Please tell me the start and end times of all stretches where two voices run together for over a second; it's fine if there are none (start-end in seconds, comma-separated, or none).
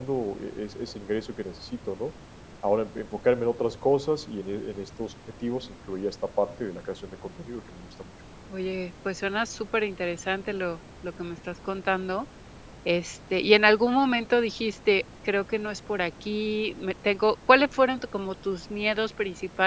none